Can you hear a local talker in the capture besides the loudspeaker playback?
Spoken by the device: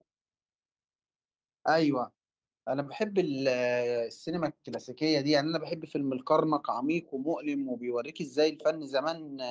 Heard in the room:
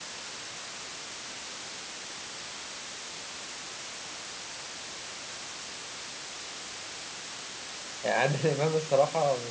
Yes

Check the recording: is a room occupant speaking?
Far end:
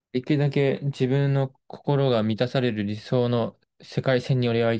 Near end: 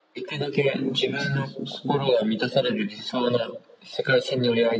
Yes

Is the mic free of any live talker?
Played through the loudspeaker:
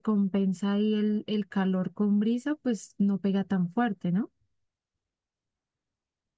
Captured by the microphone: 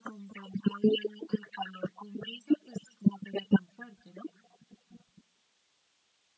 Yes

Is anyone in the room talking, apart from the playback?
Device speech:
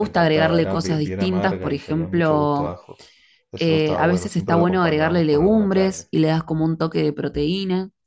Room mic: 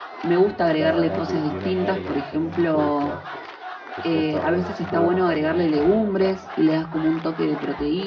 No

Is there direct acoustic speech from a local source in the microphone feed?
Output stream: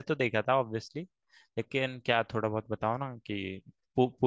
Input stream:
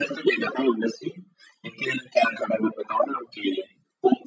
No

